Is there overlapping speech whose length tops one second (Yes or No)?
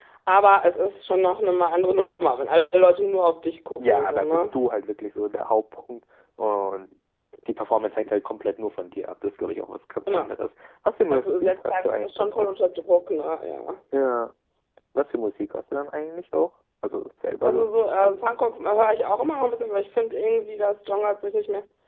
Yes